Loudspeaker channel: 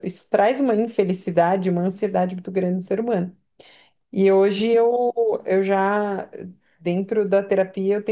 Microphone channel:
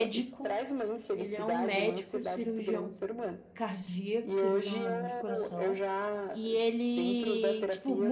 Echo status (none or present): present